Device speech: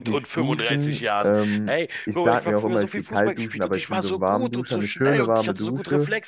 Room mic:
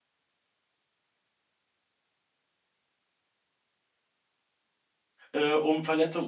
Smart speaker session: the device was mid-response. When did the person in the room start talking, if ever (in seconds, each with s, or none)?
5.3 s